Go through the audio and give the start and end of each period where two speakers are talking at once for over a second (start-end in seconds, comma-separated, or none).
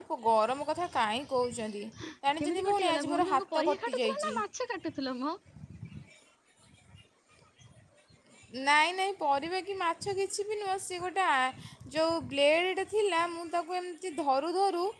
2.4-4.2